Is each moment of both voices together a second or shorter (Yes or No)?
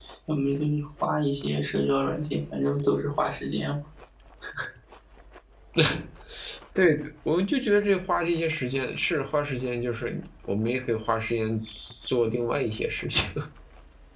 Yes